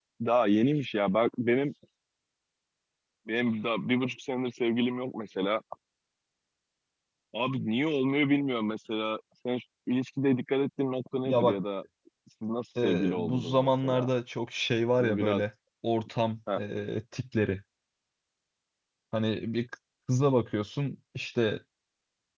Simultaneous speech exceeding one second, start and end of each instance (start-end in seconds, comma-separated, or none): 12.8-14.1